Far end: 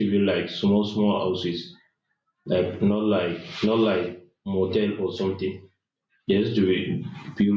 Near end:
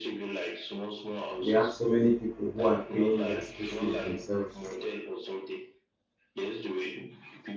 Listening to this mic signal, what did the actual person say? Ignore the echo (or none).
We have so many people who are paying their school fees themselves,